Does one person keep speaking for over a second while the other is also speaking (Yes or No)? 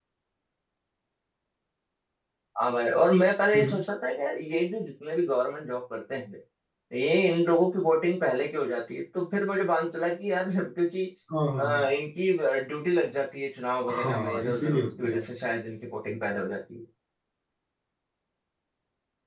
Yes